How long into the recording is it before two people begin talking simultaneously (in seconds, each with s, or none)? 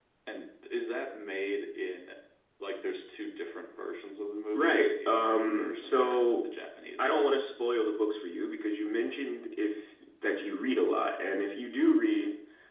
4.5 s